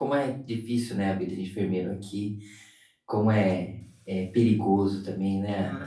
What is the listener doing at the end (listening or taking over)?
taking over